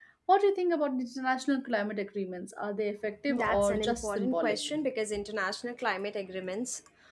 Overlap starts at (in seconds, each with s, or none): 3.3 s